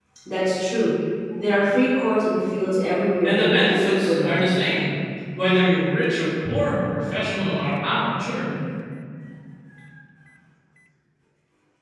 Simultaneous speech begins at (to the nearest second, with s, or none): 3 s